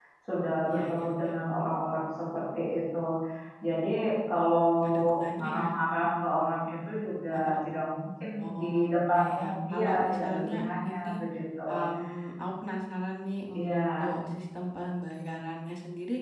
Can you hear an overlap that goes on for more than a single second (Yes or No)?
Yes